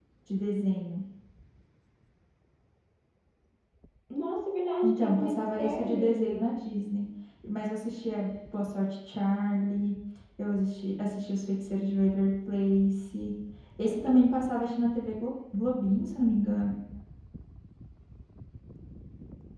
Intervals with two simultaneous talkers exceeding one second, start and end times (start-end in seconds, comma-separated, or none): 4.8-6.4